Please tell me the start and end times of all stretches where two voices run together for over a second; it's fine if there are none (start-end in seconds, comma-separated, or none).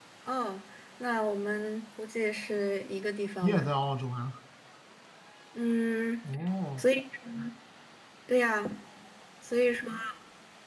none